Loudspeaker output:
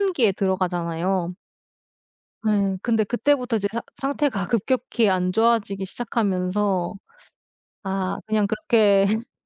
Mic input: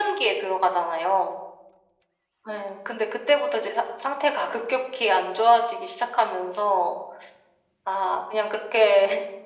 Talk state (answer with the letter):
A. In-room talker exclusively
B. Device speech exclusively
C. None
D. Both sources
B